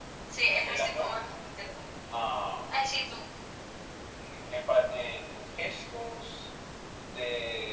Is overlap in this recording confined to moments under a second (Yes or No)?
Yes